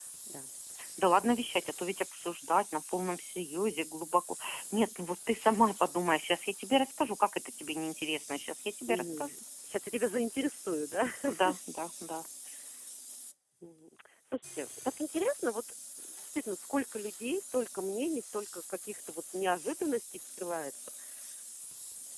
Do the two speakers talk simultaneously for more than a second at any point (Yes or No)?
No